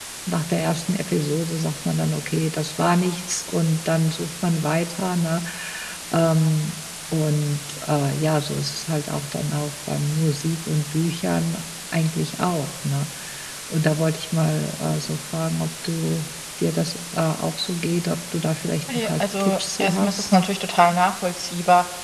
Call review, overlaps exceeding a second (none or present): present